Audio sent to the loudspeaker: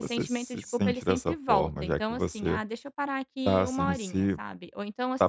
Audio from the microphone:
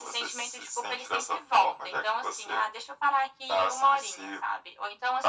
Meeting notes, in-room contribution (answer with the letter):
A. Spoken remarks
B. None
B